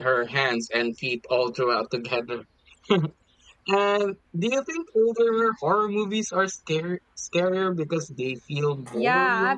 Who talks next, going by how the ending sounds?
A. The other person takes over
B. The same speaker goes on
A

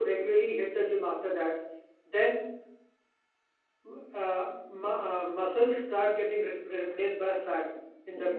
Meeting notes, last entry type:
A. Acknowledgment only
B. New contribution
B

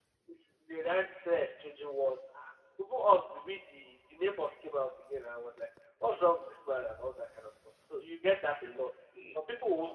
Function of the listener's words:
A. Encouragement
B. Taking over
A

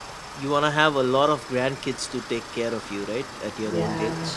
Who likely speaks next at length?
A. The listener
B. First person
A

